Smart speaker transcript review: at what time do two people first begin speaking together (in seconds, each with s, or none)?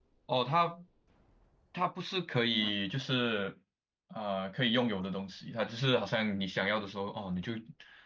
none